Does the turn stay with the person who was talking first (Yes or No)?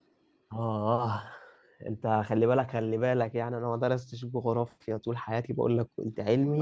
No